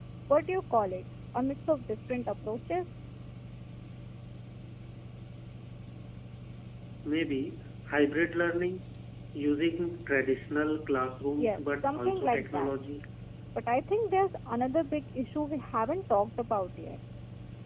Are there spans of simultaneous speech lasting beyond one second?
Yes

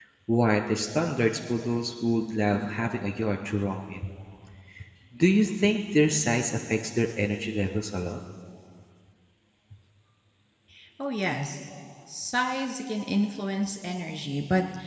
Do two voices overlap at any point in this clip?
No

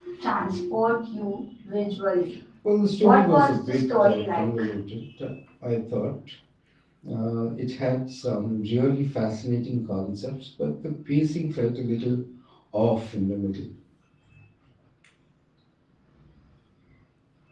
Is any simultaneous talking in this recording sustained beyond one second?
Yes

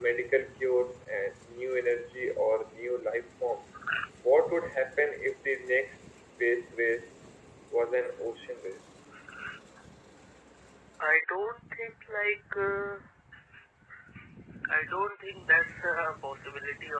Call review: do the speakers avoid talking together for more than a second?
Yes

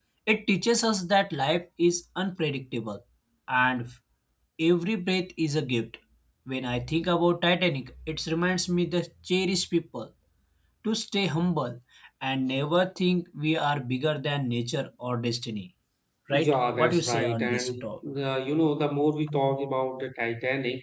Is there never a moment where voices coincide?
No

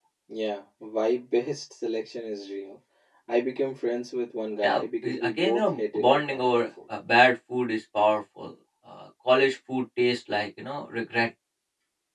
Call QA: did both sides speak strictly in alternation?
No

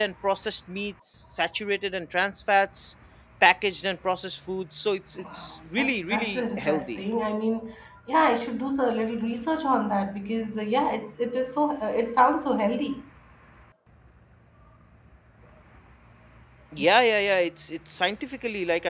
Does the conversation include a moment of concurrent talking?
Yes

